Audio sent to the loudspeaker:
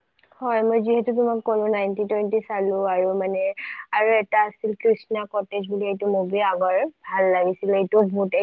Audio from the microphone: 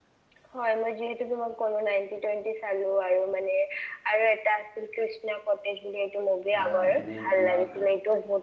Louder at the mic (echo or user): echo